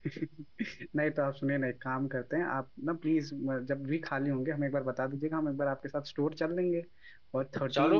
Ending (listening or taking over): taking over